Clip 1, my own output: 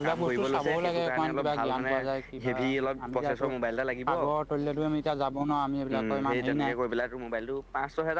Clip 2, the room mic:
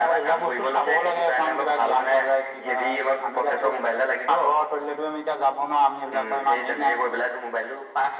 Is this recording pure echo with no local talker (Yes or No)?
Yes